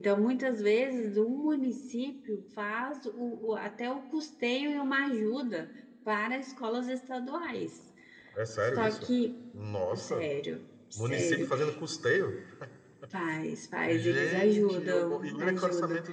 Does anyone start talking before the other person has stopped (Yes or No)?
Yes